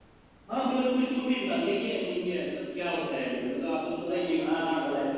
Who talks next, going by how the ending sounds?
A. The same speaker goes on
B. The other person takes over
B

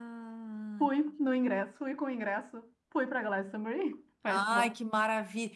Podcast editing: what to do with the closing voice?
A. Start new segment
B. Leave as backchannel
A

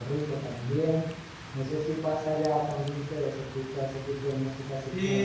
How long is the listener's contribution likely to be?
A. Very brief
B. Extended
B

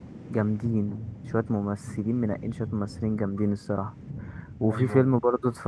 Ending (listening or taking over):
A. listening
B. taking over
A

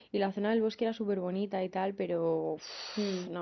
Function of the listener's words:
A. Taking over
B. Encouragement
B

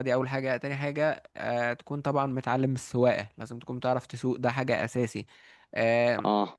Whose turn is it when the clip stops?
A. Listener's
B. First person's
B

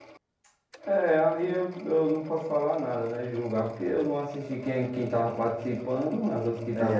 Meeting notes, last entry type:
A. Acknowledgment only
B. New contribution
B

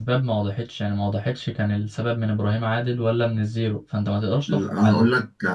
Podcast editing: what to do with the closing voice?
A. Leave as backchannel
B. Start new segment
B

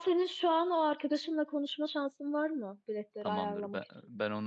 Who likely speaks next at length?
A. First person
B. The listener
B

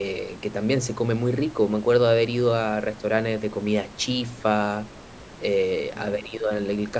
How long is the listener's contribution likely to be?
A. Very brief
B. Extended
A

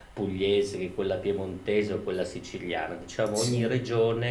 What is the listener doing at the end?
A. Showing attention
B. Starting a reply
A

